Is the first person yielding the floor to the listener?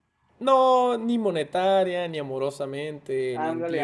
Yes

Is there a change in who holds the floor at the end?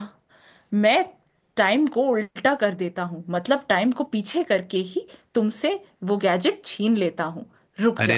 Yes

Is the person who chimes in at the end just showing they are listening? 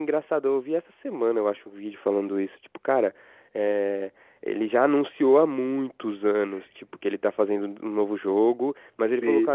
Yes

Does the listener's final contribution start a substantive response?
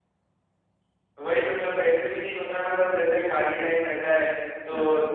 No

